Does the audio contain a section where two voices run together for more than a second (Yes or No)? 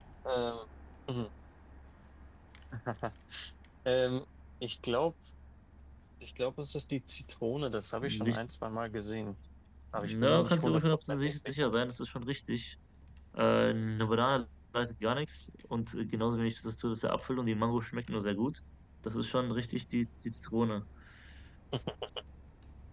Yes